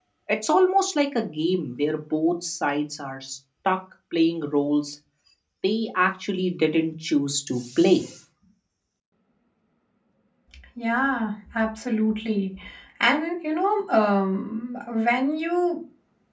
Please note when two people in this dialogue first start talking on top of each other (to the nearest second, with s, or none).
none